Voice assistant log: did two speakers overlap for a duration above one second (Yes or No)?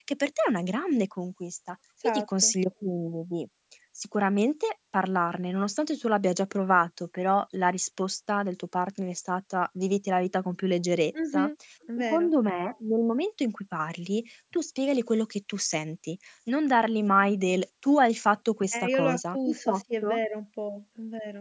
Yes